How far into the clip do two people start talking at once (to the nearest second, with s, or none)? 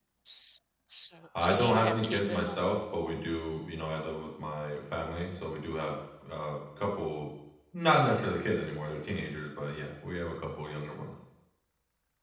1 s